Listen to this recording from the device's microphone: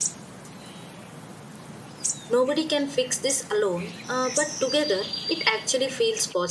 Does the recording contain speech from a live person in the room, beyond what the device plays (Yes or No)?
Yes